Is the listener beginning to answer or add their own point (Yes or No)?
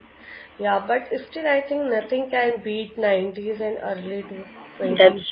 Yes